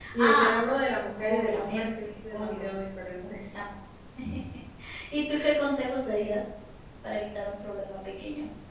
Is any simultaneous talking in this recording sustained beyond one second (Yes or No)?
Yes